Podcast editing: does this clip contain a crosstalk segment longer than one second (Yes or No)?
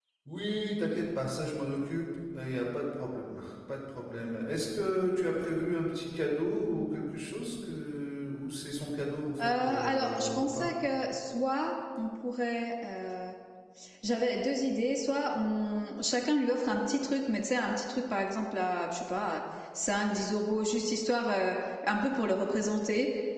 Yes